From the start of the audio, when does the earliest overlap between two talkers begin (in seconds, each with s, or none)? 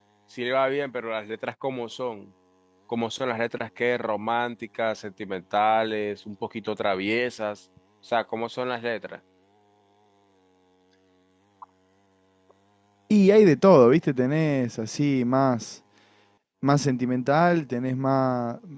none